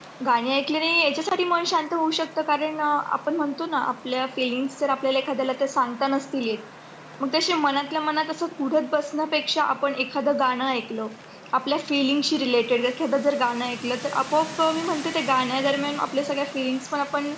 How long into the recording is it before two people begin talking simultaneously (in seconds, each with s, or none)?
none